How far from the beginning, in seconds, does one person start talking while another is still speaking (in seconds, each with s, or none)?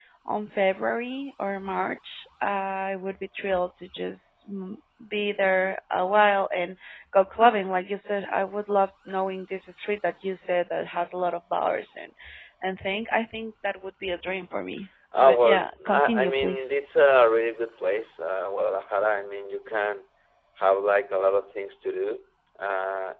15.1 s